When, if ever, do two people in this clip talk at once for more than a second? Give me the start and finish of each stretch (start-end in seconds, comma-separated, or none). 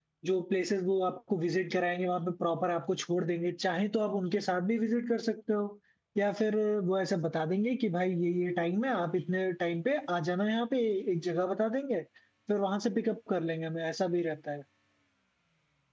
none